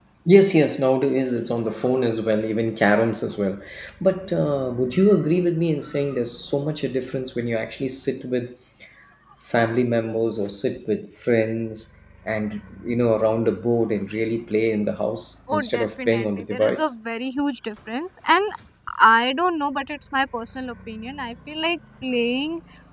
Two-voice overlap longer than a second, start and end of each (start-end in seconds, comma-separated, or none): 15.5-17.0